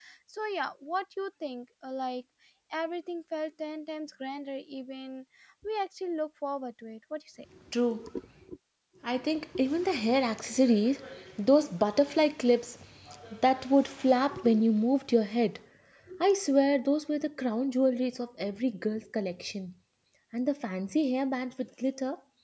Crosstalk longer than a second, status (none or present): none